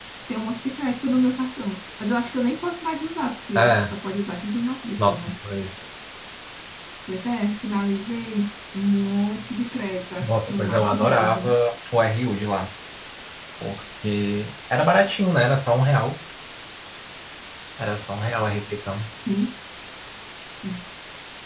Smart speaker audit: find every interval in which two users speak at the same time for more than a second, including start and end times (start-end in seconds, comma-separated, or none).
10.2-11.5